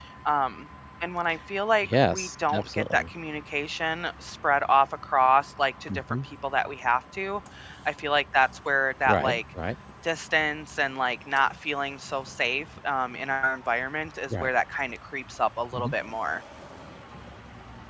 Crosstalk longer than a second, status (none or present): present